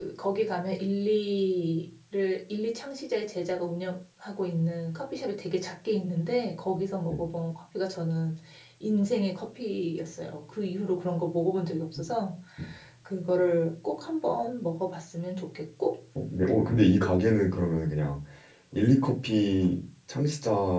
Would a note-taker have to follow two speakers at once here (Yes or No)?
No